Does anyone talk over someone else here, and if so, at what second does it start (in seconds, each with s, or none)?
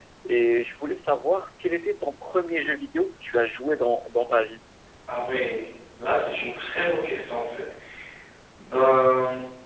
none